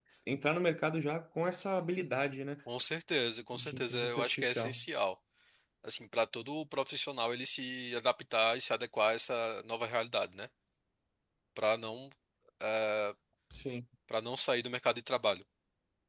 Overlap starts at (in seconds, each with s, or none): 3.5 s